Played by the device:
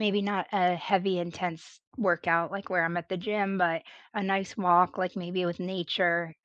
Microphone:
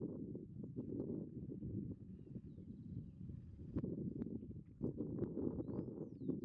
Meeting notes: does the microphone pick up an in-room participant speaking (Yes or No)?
No